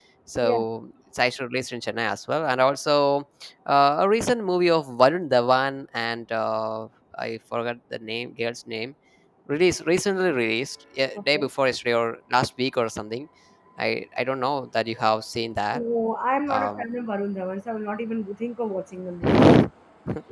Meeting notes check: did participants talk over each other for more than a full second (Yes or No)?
No